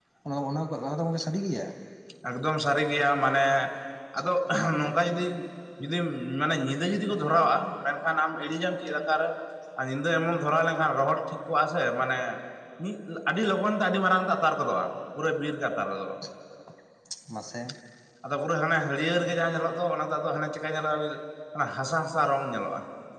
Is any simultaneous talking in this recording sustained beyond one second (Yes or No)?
No